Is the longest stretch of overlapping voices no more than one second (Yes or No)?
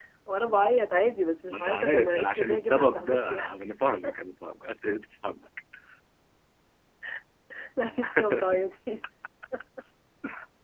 No